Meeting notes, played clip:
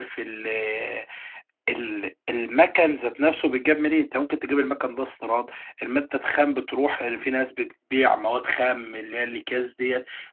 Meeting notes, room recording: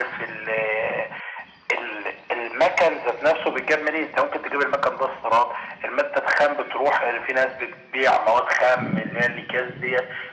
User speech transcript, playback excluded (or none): none